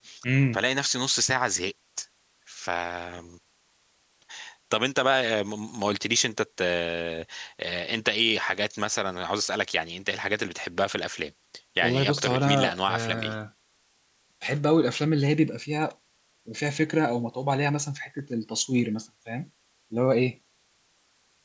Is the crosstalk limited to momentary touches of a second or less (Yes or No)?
No